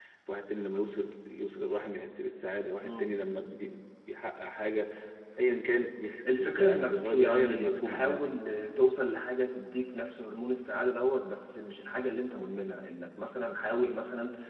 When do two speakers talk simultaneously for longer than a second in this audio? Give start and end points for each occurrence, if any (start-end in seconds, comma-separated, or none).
6.4-8.3